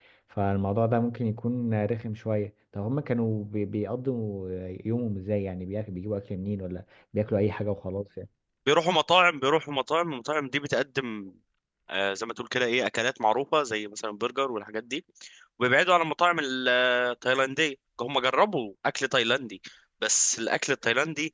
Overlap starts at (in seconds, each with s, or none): none